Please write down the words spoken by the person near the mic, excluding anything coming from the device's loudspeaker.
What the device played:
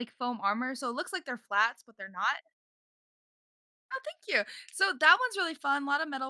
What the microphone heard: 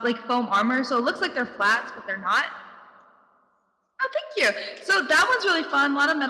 none

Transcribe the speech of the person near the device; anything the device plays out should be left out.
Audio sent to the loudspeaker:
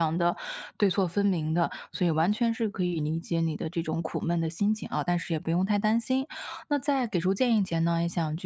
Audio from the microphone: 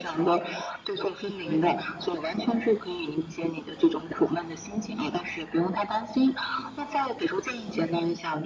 对的。

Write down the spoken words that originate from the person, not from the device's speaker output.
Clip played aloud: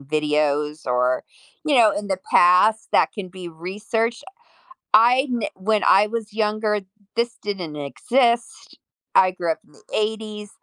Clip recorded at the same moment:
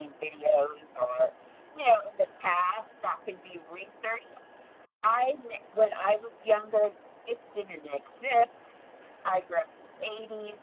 none

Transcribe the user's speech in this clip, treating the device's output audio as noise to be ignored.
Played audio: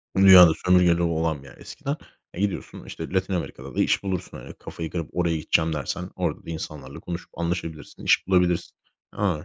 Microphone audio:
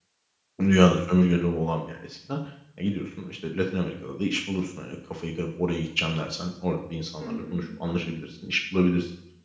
Hı hı.

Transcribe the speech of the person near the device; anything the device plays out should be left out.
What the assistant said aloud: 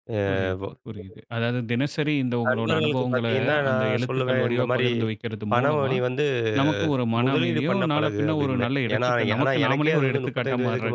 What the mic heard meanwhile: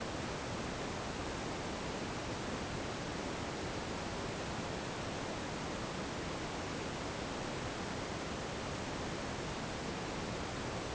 none

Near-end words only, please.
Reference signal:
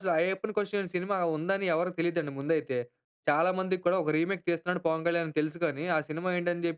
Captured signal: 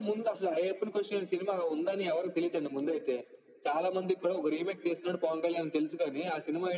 none

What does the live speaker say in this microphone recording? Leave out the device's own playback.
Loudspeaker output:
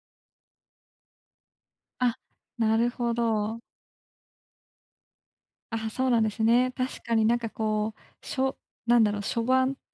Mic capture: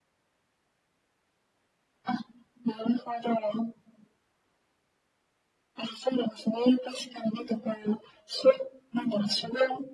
none

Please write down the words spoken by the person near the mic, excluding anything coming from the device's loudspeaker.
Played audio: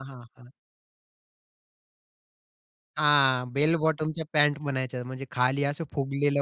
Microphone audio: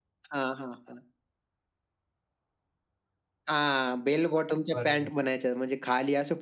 बरोबर.

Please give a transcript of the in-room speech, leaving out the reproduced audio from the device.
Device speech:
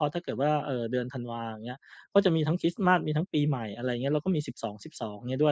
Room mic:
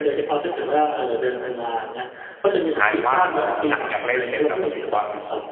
แต่กลายเป็นว่าพอหลังจากเล่นเสร็จเราก็รู้สึกว่า

